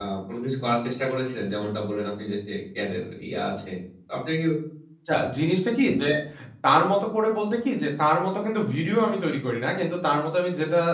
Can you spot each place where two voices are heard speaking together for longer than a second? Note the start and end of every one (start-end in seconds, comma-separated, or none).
none